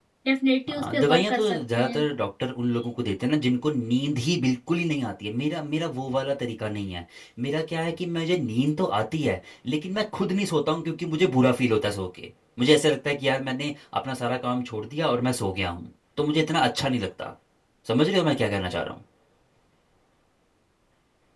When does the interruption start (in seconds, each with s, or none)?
0.7 s